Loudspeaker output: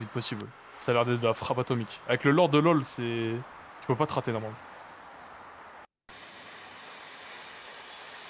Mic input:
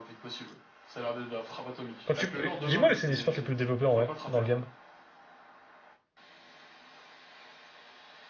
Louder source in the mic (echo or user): user